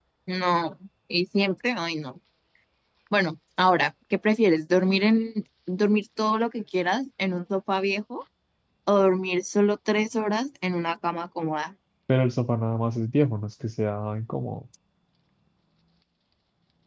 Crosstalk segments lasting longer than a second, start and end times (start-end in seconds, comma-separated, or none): none